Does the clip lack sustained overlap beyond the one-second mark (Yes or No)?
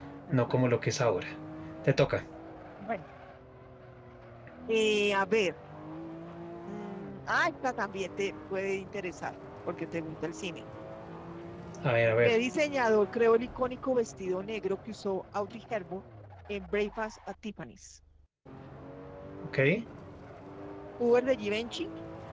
Yes